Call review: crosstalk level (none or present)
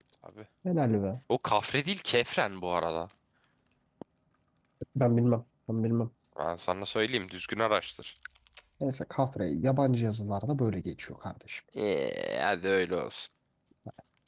none